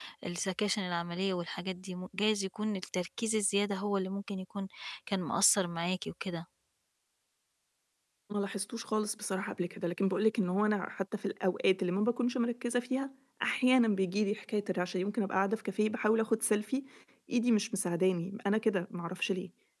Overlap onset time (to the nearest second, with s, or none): none